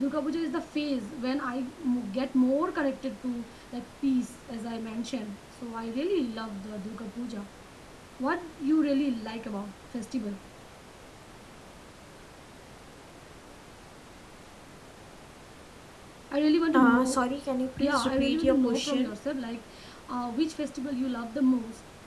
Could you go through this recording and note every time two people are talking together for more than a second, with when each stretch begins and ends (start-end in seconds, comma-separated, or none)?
17.9-19.1